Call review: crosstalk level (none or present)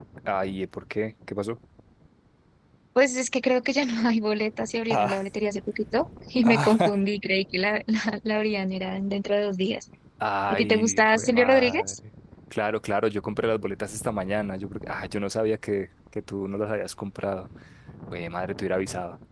present